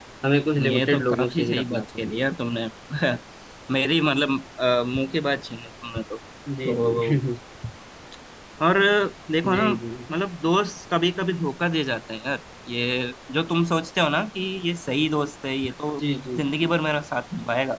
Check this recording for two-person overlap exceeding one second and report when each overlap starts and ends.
0.7-2.1

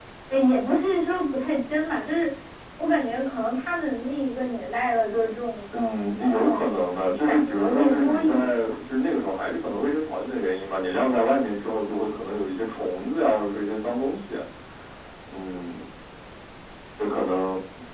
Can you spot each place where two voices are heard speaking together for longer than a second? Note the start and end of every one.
6.3-8.8

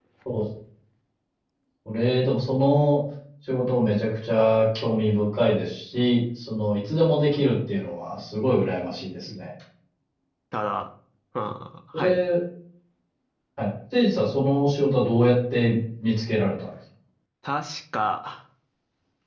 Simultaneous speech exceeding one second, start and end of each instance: none

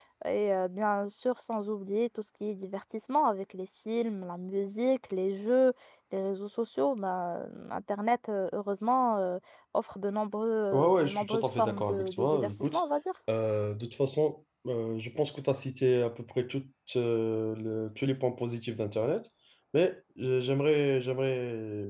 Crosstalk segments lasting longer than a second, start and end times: 10.7-12.8

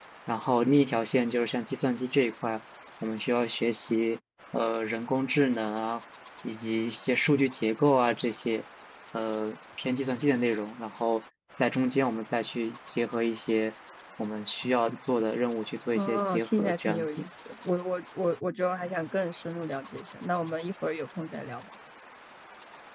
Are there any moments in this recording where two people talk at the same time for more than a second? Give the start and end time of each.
15.9-17.2

